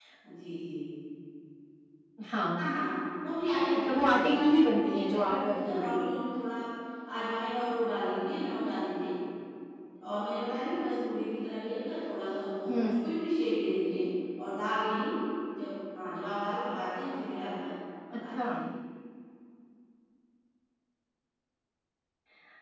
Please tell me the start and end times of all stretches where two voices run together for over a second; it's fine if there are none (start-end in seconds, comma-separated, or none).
3.7-6.2